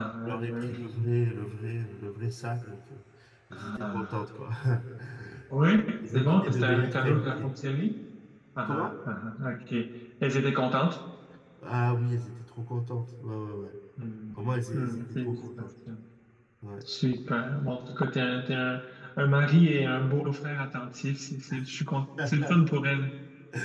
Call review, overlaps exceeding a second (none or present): present